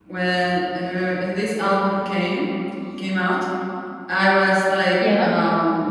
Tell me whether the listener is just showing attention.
Yes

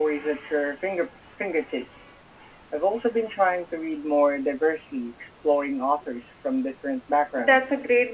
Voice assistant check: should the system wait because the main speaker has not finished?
No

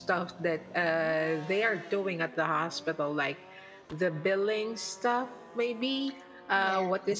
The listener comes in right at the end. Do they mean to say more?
No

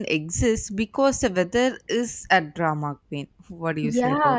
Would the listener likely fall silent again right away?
No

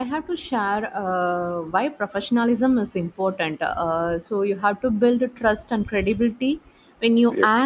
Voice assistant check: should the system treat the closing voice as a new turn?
No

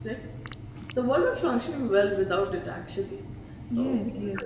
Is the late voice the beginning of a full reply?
Yes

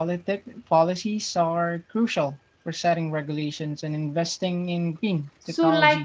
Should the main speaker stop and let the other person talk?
Yes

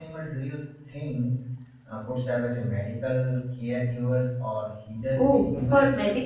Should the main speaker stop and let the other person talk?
Yes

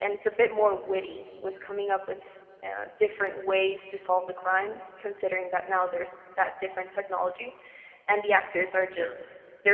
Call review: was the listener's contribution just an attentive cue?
Yes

